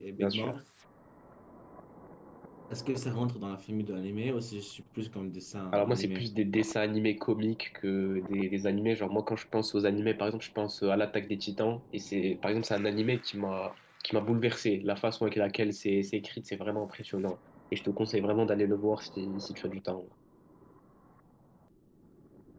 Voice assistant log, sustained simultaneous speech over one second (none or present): none